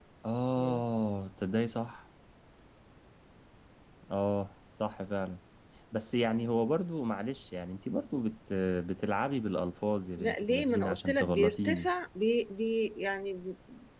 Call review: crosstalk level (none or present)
present